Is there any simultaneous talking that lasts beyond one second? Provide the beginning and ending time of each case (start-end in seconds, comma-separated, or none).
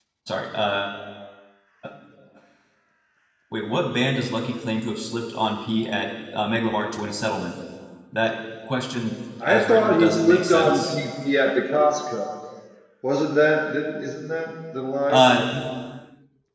9.4-11.0